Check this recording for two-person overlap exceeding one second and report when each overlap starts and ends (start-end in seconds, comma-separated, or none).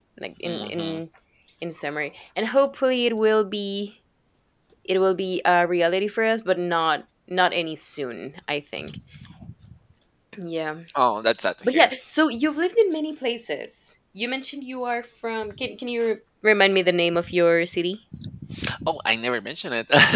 none